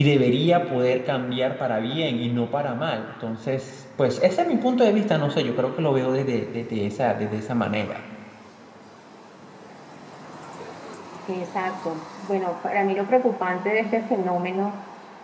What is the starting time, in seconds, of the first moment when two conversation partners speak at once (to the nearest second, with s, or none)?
none